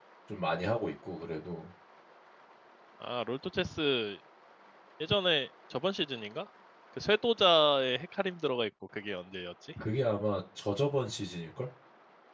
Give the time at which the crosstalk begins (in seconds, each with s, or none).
none